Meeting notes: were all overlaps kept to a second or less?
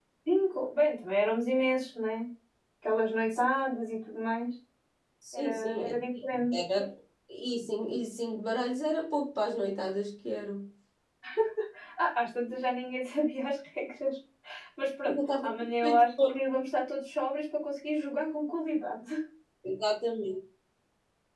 No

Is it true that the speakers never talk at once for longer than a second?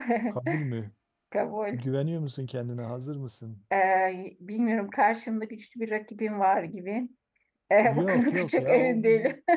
No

